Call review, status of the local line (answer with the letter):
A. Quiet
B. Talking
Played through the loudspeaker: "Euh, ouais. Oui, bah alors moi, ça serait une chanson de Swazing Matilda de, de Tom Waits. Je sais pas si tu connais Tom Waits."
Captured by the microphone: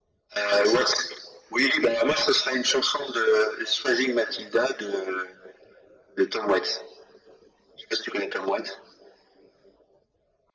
A